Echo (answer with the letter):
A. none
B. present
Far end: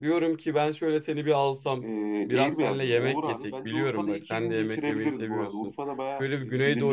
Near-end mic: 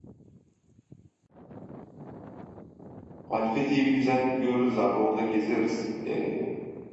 A